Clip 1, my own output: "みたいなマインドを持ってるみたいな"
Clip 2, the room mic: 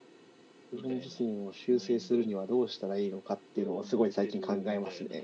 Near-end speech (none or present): present